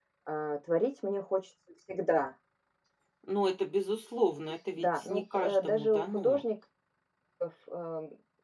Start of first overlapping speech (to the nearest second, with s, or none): 5 s